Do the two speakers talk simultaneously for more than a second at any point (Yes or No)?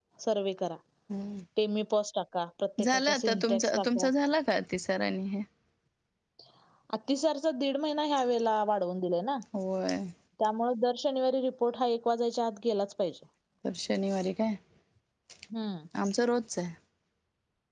Yes